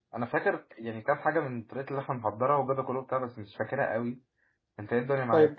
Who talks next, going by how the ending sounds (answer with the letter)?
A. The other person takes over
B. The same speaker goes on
A